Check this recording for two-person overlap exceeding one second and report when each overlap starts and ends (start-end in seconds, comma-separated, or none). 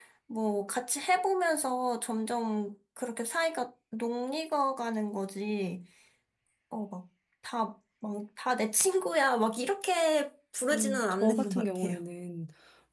10.7-12.0